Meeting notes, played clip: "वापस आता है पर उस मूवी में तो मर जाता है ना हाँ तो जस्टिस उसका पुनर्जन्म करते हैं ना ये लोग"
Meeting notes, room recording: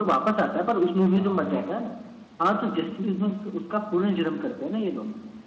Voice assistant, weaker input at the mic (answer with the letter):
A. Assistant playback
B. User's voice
B